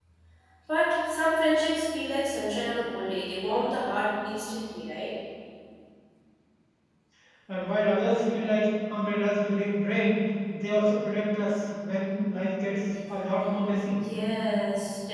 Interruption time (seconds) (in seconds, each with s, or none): none